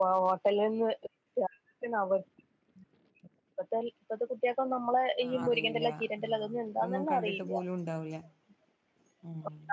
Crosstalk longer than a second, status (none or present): present